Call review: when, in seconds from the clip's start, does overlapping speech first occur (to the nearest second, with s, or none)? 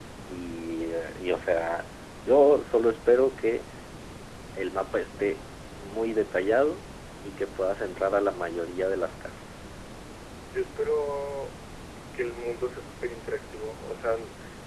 none